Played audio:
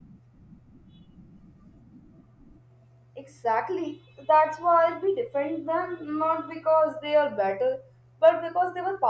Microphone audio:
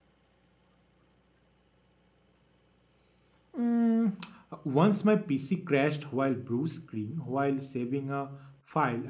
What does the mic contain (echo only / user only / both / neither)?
user only